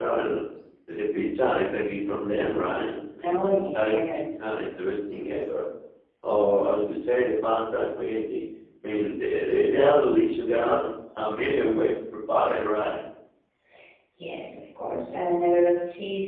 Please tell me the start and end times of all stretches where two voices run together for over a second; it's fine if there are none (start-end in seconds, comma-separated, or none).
3.2-4.5